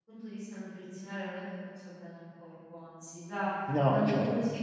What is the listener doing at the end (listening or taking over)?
listening